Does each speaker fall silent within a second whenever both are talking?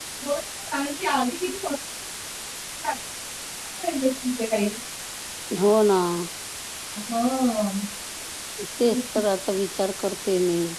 Yes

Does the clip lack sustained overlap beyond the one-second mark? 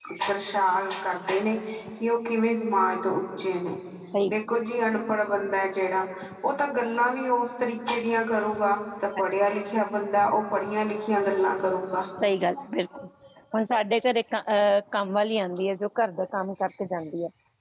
Yes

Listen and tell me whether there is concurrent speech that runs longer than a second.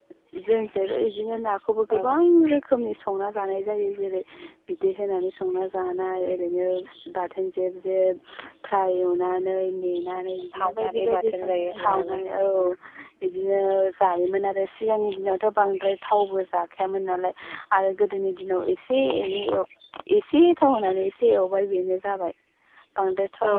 Yes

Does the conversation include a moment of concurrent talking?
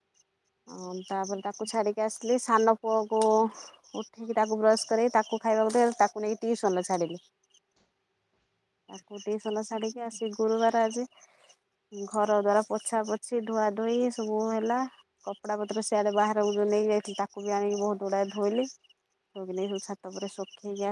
No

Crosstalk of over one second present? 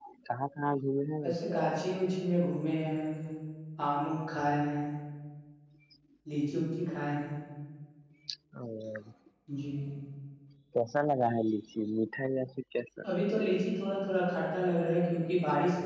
No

